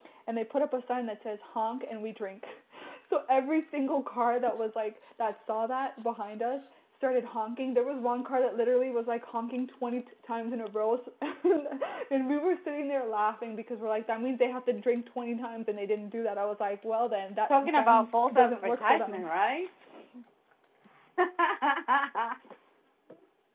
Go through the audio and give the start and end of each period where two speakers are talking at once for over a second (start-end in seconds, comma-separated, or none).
17.5-19.3